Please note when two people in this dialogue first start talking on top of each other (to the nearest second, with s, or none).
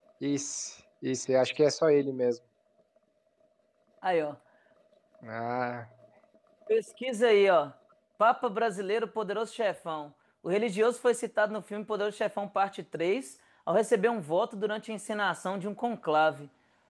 none